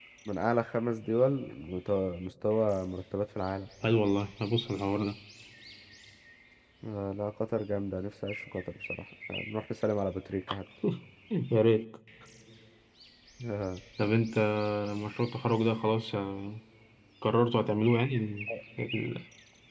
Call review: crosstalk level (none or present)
none